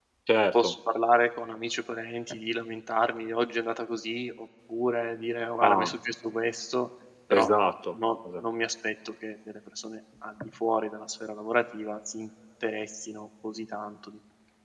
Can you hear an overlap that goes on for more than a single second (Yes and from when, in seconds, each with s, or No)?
No